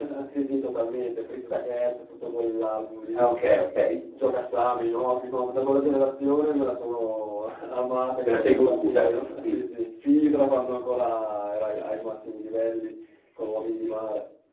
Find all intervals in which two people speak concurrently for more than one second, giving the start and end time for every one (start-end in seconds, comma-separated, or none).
8.2-9.6